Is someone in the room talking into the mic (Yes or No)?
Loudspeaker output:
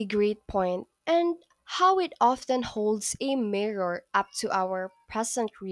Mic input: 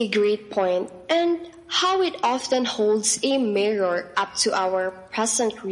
No